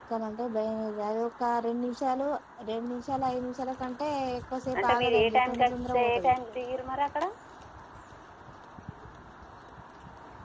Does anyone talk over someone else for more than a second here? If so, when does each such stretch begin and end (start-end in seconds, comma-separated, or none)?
4.8-6.3